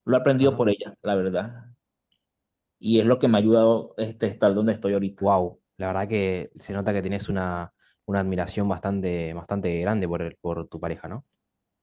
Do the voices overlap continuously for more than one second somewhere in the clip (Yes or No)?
No